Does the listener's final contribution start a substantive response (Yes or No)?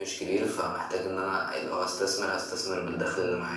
Yes